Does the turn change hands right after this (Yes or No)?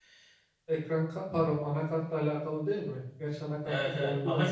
Yes